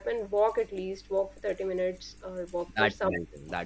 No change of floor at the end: No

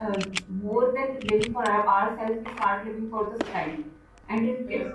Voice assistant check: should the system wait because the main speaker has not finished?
Yes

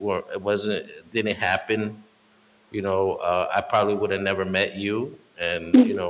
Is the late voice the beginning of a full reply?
No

